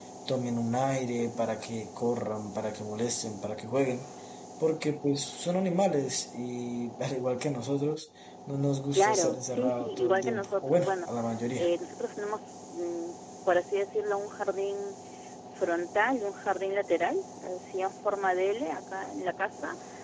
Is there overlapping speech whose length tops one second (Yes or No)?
Yes